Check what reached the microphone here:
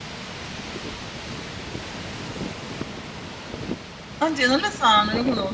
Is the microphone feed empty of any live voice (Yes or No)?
No